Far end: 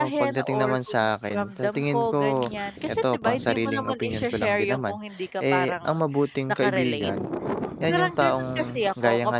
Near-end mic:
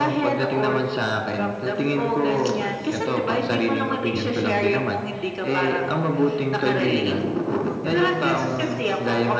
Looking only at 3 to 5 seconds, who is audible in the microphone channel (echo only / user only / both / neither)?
echo only